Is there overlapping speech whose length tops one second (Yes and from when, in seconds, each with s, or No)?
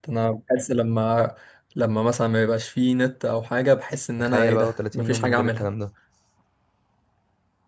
Yes, from 4.2 s